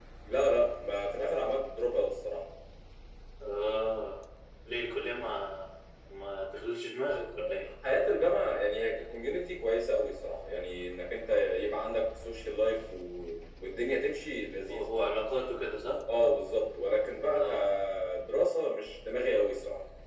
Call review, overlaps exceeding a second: none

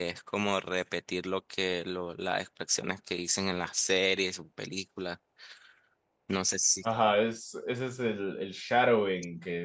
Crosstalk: none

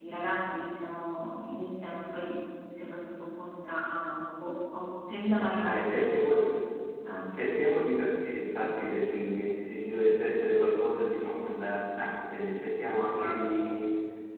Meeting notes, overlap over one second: none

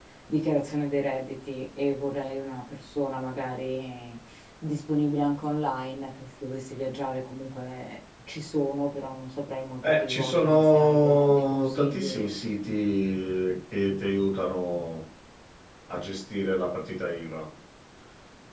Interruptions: present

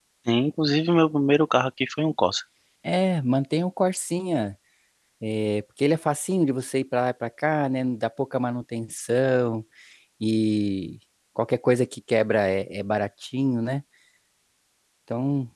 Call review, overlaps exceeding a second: none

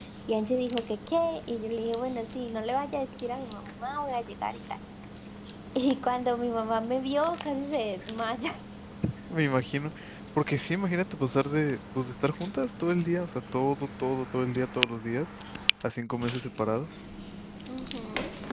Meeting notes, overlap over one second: none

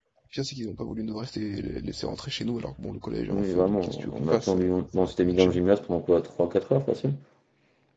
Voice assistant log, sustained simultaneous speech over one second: present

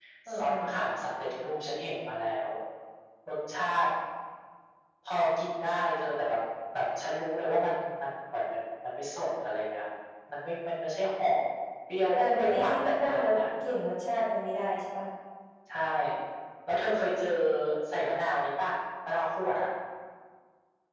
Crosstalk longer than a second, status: present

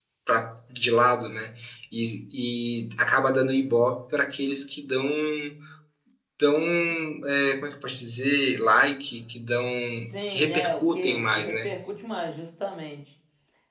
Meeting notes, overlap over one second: present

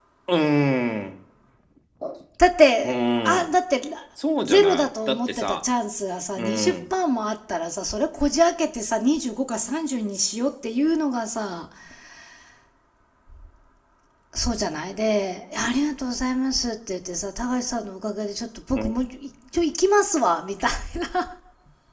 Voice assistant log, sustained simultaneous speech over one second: present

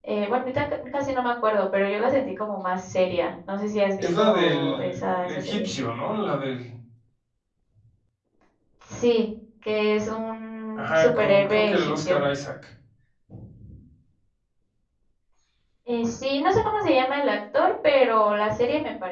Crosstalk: present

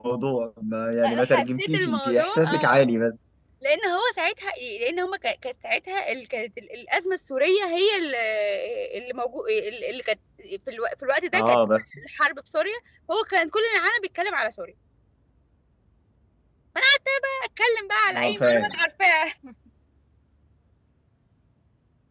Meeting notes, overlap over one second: present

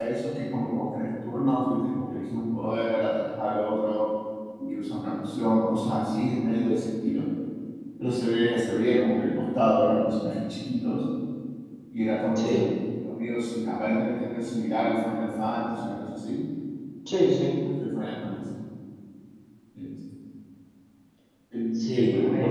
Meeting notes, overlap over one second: none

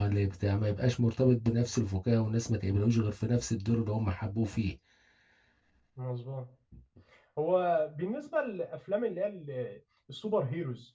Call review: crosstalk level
none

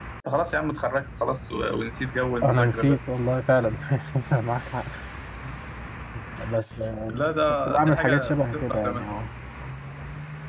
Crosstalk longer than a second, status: present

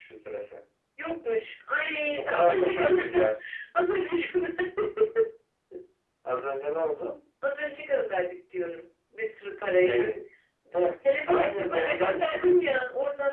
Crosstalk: present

